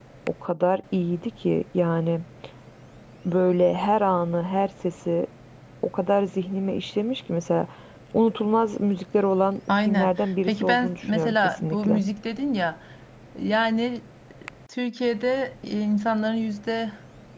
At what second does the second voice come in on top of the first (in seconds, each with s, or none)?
9.7 s